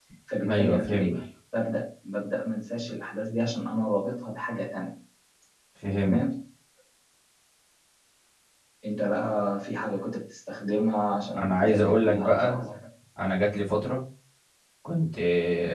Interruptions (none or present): present